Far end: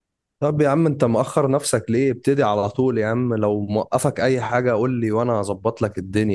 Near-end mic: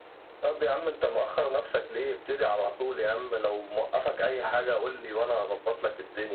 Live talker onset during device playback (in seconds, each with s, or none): none